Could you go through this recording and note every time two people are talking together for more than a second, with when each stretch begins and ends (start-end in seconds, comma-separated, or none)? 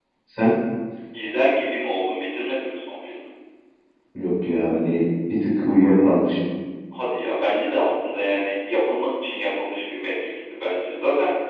none